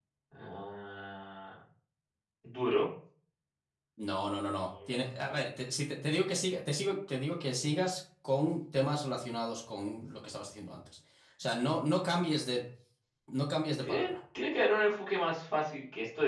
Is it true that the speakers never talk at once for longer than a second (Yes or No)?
Yes